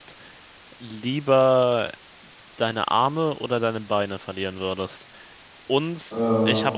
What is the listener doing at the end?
listening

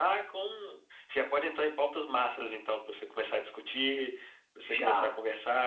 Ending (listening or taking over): listening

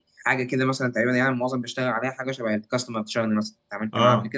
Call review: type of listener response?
taking over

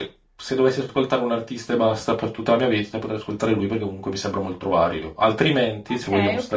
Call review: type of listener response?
taking over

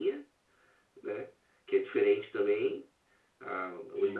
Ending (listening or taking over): listening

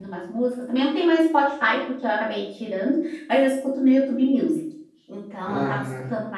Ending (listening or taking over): listening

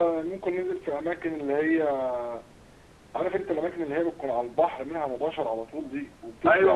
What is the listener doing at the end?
taking over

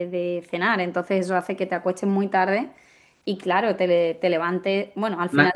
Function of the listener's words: listening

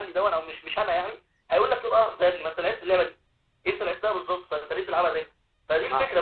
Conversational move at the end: listening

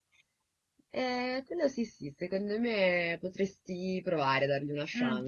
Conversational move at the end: taking over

